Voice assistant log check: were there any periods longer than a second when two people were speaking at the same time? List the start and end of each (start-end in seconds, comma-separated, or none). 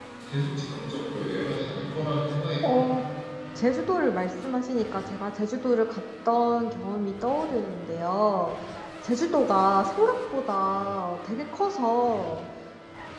none